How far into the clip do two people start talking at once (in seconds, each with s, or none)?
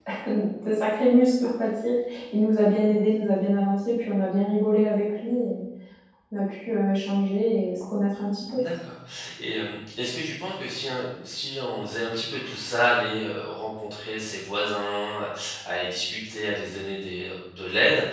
none